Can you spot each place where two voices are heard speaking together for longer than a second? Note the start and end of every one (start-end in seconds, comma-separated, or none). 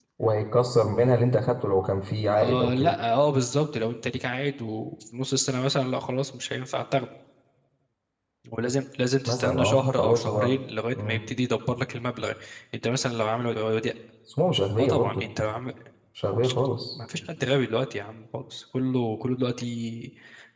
9.2-10.5